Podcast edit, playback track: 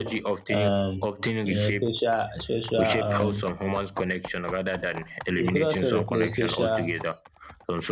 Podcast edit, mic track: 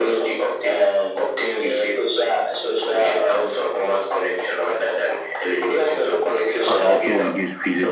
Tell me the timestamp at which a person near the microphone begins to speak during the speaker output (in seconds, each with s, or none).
6.7 s